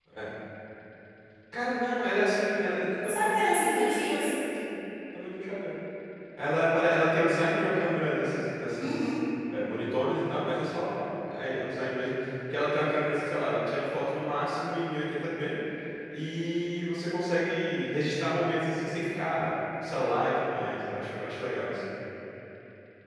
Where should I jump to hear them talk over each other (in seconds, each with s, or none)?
3.1 s